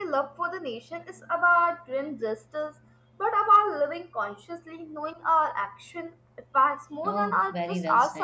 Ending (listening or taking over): taking over